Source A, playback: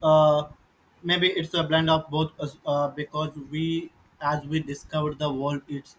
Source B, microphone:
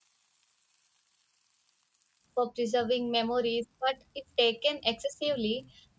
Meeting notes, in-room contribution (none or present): present